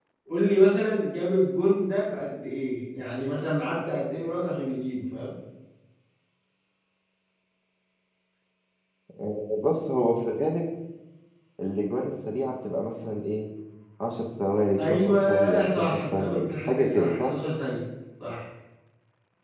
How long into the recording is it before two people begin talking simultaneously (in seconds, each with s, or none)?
14.8 s